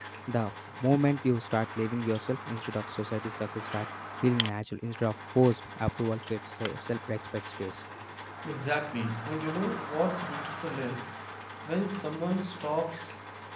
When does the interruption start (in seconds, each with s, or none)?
none